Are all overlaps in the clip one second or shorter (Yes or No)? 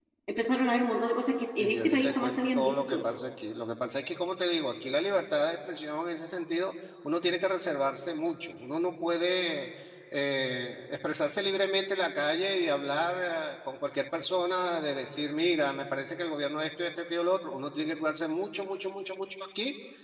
No